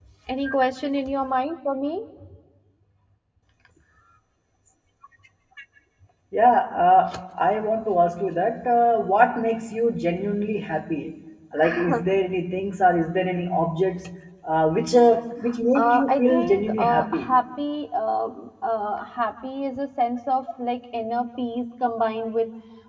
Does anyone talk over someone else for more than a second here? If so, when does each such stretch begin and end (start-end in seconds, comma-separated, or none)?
15.8-17.3